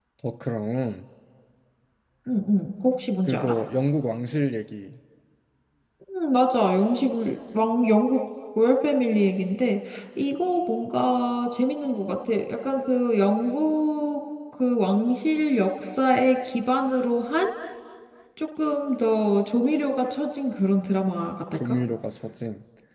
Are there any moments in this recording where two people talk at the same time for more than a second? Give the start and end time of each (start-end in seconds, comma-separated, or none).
none